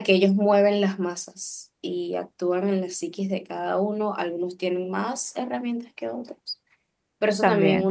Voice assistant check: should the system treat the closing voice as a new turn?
No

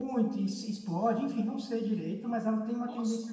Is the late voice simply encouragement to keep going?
Yes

